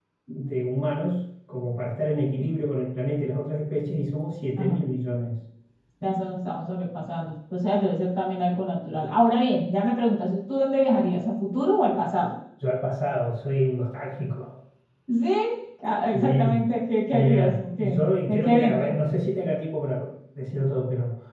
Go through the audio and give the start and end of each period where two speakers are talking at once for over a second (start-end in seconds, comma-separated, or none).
17.1-18.9